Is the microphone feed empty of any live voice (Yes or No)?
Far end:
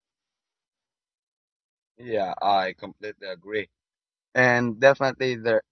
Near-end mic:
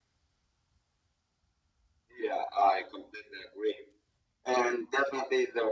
Yes